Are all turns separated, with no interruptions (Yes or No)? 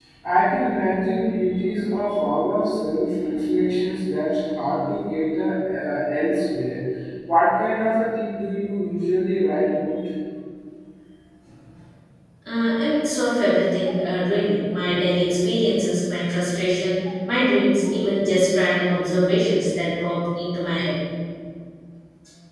Yes